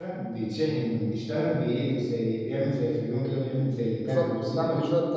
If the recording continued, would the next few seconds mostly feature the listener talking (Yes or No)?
Yes